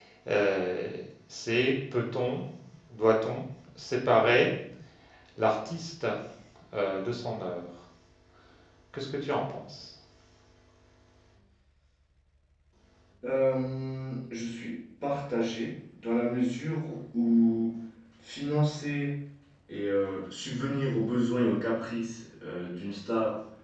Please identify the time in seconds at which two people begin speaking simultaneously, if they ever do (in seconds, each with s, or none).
none